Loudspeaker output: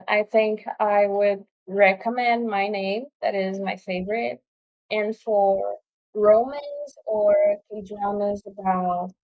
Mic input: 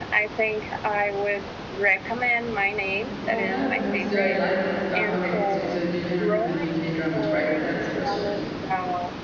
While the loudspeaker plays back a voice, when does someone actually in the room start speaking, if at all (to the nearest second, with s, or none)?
3 s